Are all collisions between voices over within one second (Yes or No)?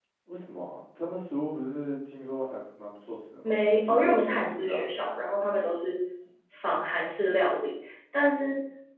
No